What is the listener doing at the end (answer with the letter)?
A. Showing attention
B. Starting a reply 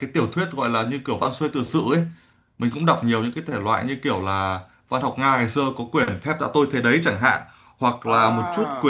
A